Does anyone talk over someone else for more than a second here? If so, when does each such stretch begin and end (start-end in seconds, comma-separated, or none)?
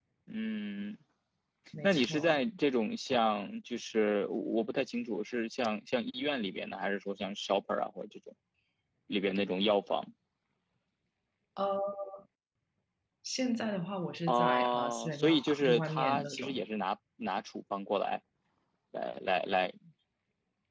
14.3-16.5